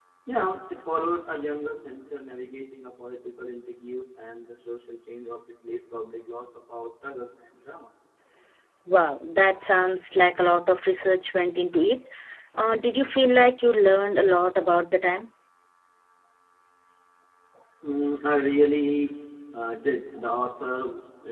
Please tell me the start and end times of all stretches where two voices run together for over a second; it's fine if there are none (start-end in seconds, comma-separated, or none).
none